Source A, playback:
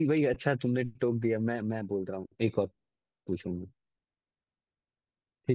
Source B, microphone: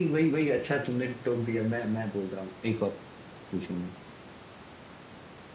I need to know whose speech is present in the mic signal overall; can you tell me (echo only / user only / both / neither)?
echo only